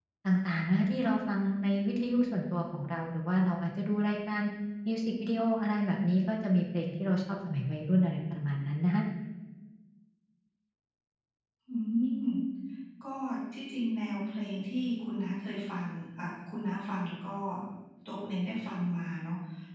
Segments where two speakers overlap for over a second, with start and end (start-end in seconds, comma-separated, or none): none